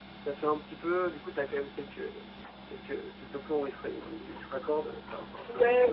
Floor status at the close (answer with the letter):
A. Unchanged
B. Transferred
B